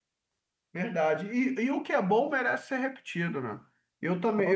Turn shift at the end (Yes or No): No